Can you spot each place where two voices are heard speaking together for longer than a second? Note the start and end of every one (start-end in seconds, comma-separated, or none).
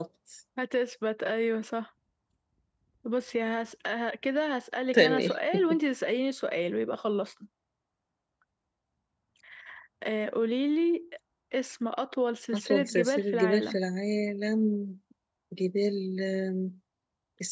12.5-13.8